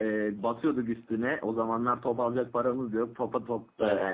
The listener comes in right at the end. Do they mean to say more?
No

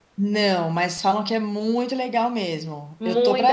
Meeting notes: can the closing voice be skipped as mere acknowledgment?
No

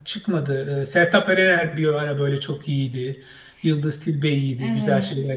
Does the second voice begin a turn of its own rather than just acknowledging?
No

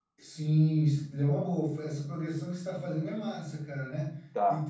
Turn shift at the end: No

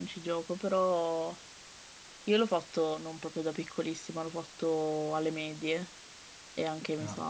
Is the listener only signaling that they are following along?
Yes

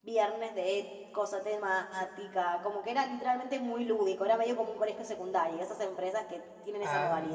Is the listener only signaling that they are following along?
No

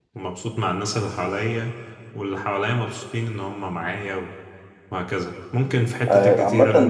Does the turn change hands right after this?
Yes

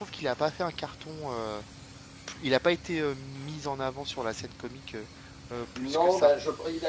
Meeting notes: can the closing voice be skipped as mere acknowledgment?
No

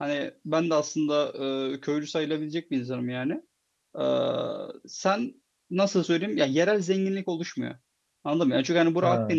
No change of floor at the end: Yes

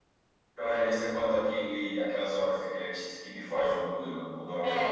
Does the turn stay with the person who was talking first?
No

